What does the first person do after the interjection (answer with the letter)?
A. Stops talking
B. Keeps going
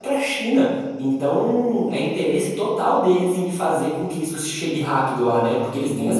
B